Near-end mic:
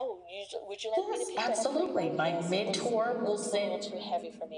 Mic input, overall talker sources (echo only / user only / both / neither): both